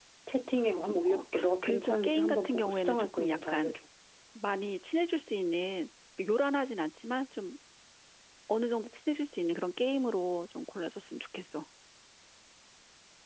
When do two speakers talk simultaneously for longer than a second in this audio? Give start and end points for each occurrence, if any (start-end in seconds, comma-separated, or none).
1.1-3.7